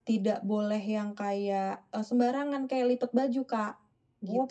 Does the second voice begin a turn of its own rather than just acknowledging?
Yes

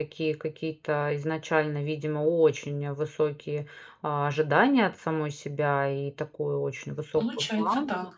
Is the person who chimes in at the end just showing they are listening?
Yes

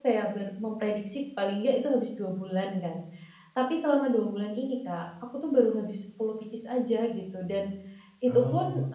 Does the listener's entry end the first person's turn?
No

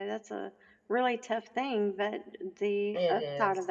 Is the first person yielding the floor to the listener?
No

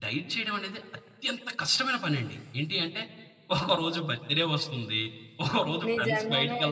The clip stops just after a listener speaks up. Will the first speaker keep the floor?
No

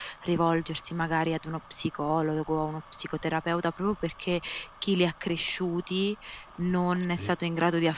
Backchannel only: Yes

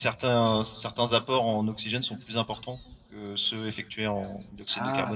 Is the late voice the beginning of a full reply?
Yes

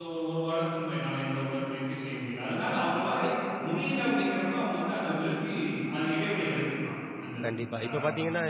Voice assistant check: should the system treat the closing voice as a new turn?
Yes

